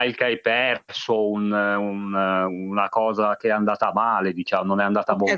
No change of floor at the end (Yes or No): No